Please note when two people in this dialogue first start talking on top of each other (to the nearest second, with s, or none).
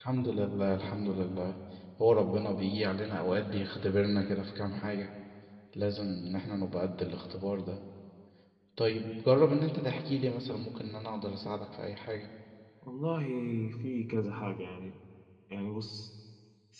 none